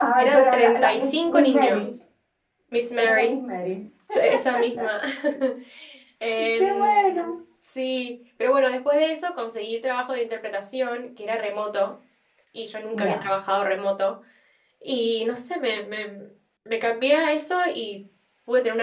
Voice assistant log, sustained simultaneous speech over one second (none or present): present